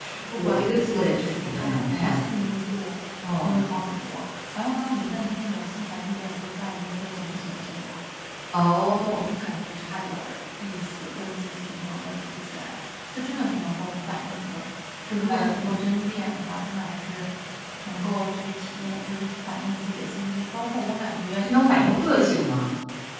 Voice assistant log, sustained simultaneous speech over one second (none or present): present